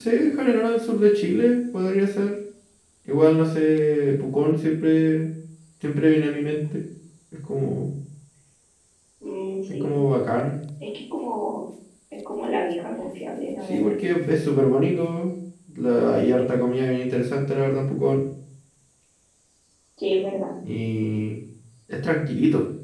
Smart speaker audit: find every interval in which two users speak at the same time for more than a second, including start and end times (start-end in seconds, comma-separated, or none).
none